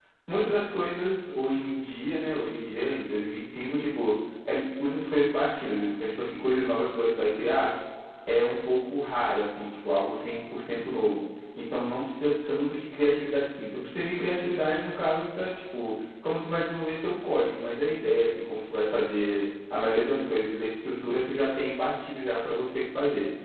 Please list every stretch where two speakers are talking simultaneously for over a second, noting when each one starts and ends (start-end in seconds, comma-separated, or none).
none